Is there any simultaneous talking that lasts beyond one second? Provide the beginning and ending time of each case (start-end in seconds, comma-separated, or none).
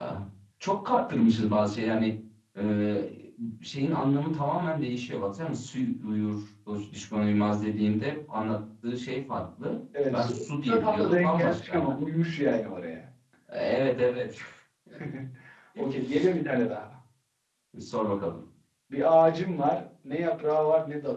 10.1-11.8